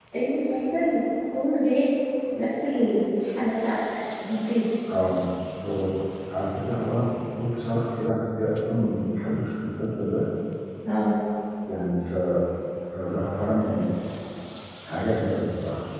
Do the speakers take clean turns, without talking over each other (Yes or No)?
Yes